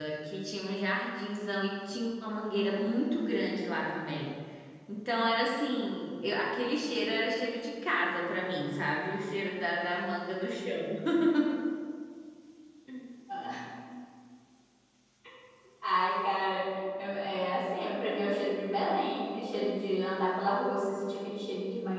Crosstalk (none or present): none